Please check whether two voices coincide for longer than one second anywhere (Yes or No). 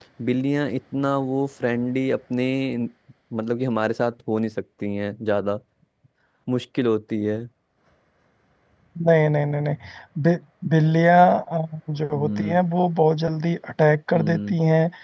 No